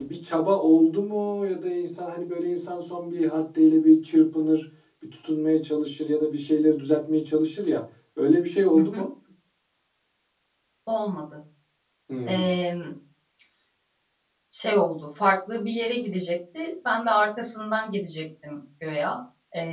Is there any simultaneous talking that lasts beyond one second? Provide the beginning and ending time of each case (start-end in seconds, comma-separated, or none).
none